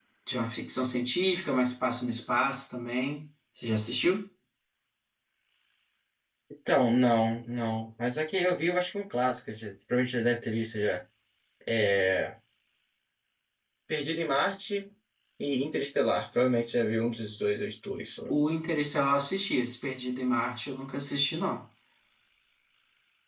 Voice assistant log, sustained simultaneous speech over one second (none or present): none